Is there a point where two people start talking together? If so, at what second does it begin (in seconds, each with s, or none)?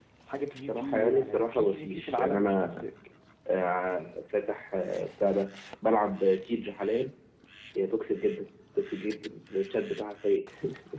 0.7 s